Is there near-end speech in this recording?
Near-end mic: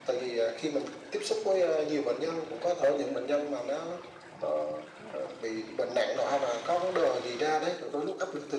No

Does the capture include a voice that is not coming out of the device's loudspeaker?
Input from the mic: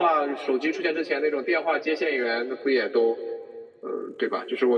No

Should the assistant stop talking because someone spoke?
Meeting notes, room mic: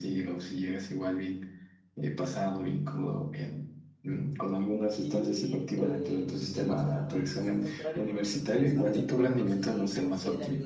Yes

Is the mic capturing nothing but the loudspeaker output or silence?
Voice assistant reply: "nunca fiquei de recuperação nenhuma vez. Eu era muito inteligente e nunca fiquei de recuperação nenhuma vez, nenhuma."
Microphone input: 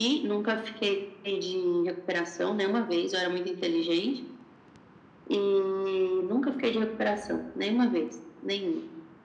Yes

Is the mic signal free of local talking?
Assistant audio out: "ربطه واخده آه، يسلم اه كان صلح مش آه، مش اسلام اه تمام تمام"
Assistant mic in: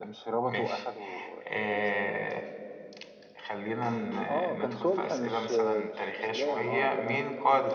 No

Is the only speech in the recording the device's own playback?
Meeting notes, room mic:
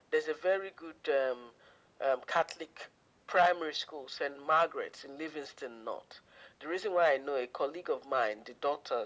Yes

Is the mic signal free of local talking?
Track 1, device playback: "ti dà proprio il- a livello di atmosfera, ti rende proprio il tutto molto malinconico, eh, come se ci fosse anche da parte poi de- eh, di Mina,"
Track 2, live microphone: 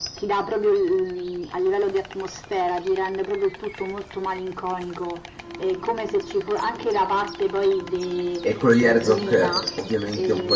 No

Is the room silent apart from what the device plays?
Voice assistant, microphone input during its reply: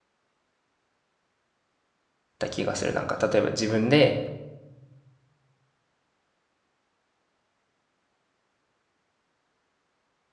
No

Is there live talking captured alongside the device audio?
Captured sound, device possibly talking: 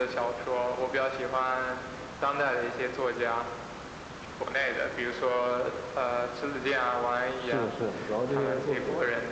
Yes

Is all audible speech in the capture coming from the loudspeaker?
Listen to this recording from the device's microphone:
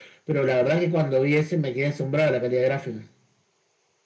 Yes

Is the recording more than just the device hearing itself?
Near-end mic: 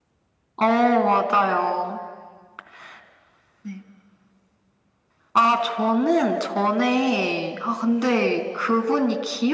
No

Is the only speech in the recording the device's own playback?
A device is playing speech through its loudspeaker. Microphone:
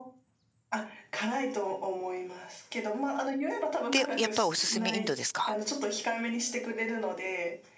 No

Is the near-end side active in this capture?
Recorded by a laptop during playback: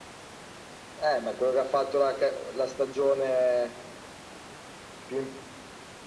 No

